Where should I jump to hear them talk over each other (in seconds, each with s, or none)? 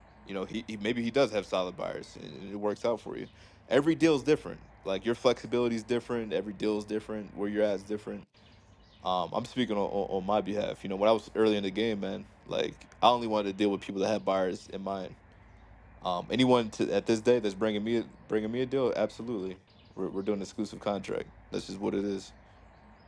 none